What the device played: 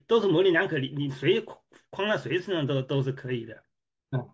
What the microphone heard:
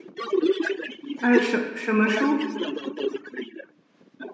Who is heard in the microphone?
both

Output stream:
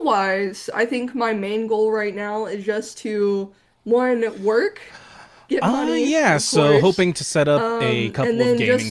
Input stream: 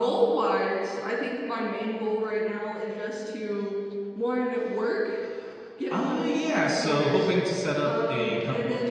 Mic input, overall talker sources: echo only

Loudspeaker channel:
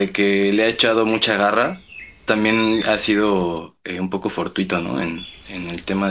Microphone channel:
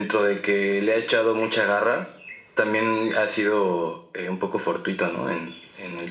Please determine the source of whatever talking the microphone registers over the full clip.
echo only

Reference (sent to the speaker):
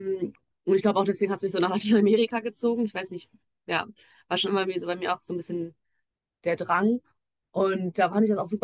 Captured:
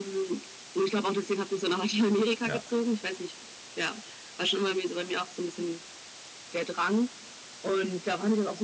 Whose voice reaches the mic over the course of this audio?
both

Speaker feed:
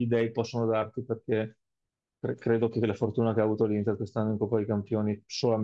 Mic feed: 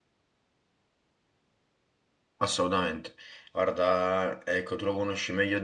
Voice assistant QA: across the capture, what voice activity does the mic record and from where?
user only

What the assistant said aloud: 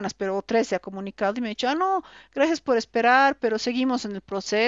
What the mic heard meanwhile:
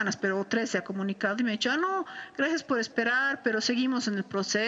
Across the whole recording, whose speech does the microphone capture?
echo only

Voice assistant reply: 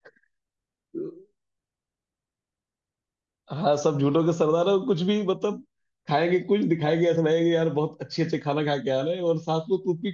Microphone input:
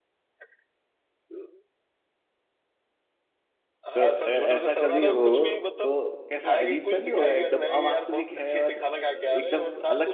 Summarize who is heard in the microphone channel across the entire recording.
both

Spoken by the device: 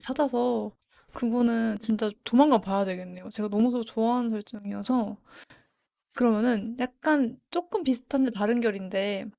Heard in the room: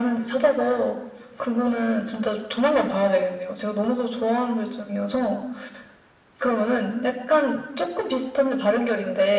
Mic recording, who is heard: echo only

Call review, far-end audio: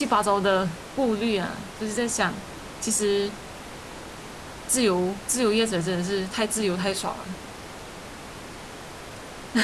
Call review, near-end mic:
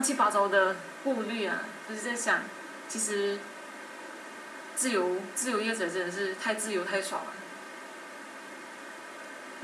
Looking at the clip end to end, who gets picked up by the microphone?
echo only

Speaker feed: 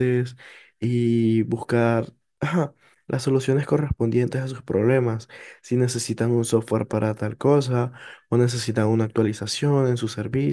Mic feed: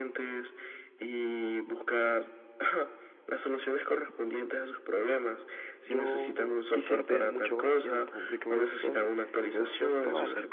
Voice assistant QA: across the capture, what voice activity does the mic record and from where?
both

